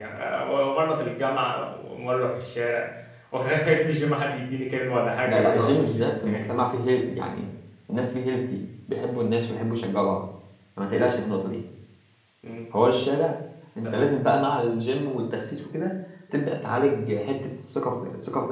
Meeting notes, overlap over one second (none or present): present